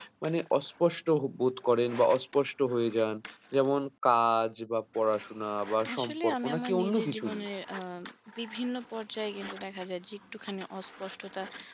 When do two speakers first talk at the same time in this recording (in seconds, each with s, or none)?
5.8 s